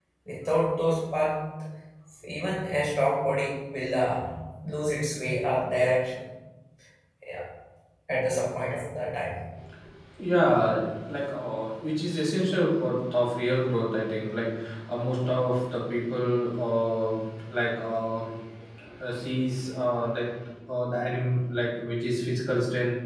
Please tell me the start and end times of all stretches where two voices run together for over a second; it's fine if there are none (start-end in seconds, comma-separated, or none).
none